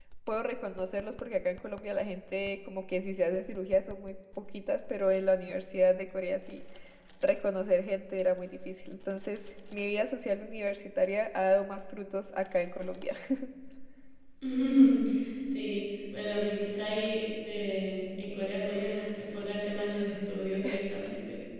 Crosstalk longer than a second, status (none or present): none